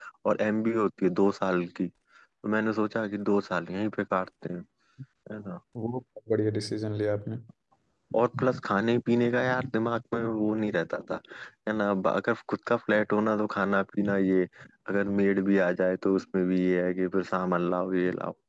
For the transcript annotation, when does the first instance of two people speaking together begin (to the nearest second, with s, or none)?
none